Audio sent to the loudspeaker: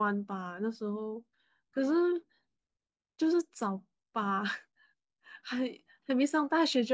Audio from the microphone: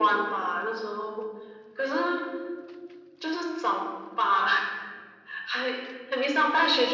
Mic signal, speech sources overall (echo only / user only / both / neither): echo only